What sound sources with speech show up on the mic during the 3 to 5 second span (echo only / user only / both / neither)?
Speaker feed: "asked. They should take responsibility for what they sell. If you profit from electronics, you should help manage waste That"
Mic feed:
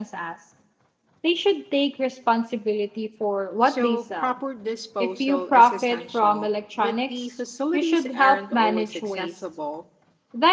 both